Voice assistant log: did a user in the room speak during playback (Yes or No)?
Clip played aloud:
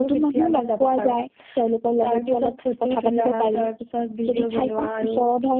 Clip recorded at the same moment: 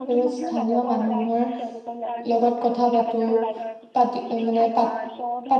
Yes